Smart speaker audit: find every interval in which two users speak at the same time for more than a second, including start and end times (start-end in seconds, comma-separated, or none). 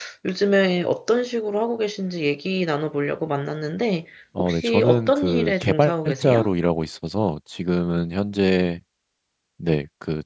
4.4-6.5